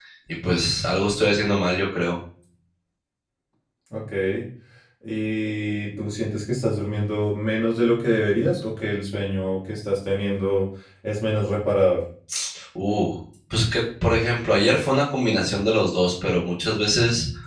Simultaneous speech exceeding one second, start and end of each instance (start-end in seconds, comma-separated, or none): none